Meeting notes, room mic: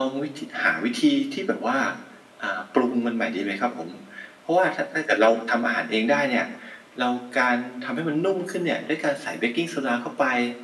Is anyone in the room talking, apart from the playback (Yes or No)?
No